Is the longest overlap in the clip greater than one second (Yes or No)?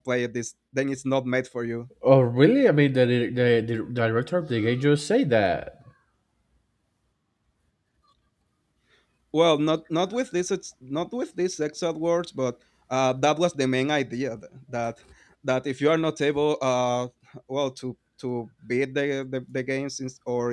No